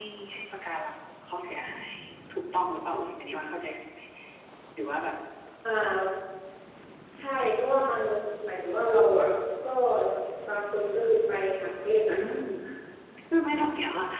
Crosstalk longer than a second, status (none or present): none